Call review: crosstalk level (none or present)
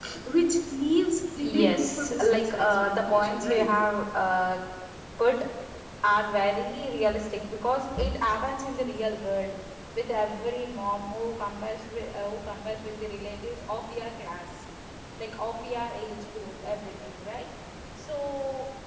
present